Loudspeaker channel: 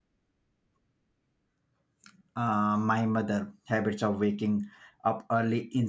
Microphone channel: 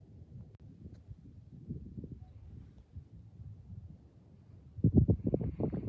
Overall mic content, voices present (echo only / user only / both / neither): neither